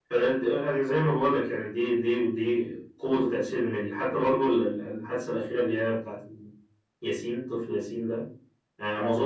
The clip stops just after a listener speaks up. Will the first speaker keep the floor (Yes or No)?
Yes